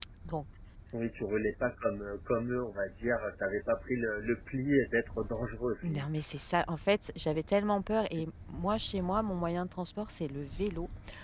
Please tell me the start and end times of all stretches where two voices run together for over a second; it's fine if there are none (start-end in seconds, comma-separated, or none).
none